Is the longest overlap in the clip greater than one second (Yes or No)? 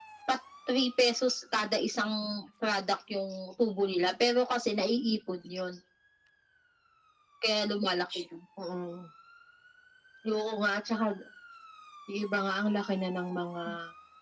No